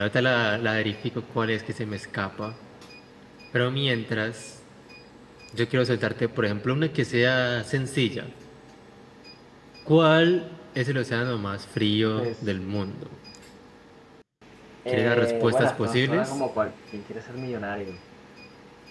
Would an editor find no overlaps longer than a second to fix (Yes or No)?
No